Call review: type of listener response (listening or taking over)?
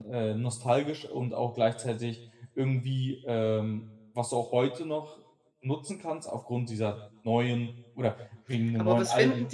taking over